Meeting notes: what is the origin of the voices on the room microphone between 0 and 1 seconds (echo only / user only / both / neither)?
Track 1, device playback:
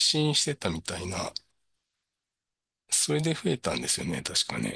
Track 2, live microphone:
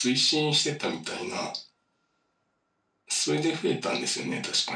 echo only